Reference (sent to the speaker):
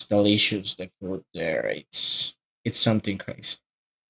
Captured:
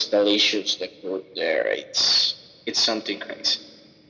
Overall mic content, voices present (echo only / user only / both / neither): echo only